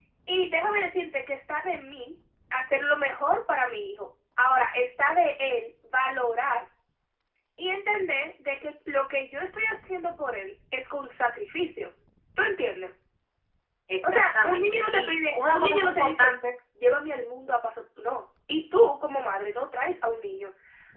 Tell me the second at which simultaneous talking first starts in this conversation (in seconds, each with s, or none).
14.1 s